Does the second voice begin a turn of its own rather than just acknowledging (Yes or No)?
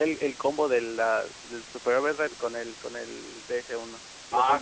Yes